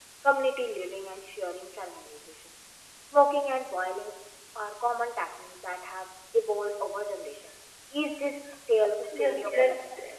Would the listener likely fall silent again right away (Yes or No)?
No